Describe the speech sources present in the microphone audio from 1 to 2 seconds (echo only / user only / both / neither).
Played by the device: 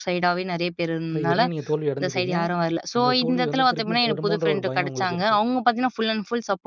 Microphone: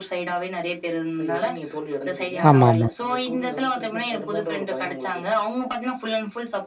echo only